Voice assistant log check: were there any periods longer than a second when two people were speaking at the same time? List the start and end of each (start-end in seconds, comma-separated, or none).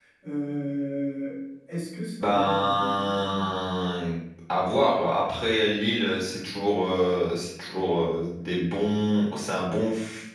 2.2-3.5